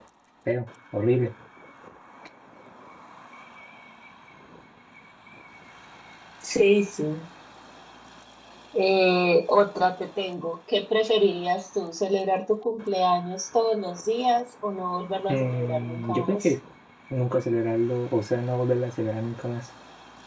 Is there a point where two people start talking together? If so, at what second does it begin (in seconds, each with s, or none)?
15.3 s